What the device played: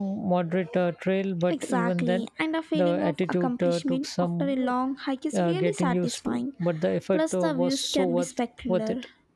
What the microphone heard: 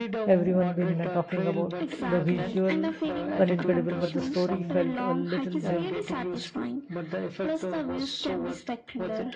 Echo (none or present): present